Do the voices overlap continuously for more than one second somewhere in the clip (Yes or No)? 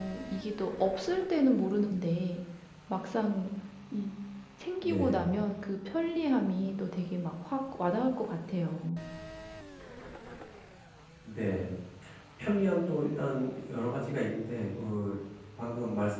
No